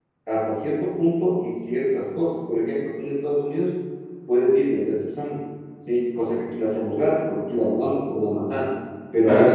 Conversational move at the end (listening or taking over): listening